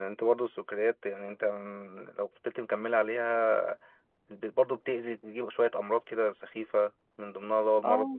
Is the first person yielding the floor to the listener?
No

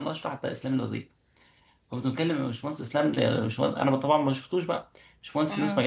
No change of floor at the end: Yes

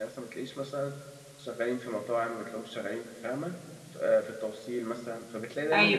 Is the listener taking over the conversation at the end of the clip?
No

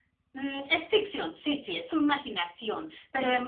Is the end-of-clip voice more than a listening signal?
No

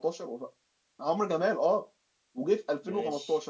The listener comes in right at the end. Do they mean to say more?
No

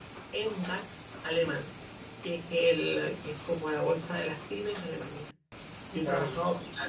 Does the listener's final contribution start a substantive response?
No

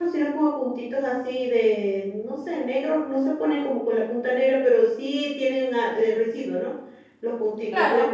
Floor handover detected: No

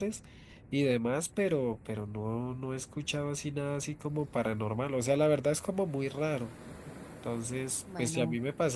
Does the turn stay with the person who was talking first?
Yes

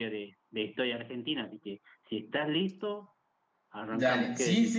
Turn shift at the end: Yes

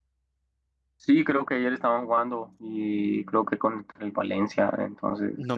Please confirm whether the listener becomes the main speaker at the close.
Yes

